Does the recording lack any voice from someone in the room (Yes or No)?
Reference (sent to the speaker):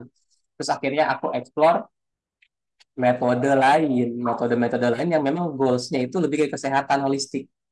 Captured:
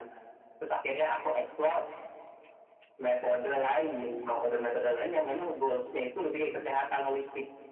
Yes